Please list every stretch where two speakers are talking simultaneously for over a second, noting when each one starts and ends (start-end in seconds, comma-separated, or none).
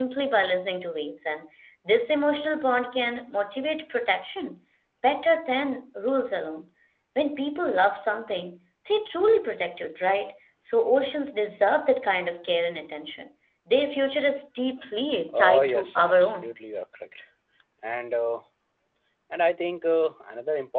15.3-16.6